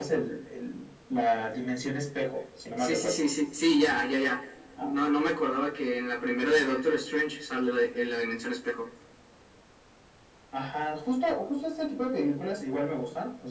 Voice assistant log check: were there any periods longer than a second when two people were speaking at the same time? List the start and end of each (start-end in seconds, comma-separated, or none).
none